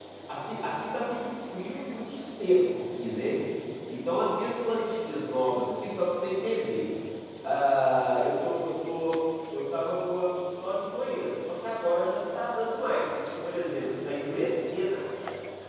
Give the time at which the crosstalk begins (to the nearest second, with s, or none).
none